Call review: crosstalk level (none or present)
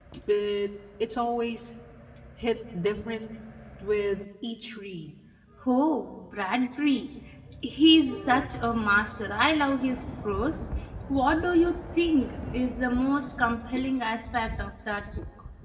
none